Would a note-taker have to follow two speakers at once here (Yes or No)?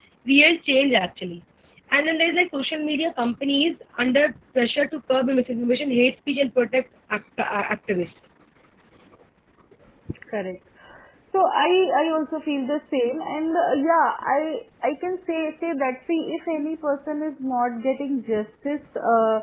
No